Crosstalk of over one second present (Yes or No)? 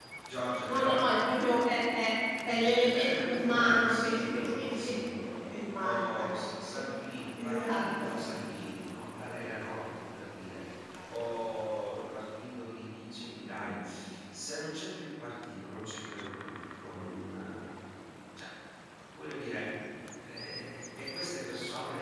Yes